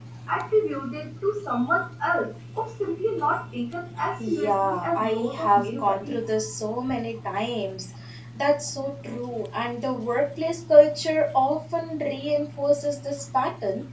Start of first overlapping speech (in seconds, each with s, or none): 4.2 s